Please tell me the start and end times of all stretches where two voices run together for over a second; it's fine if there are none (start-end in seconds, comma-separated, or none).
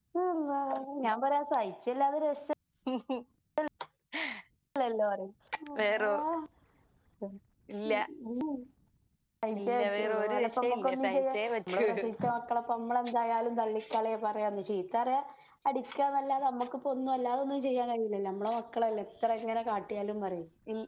9.6-11.9